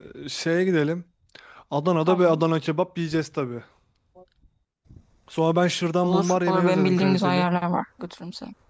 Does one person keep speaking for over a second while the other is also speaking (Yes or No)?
Yes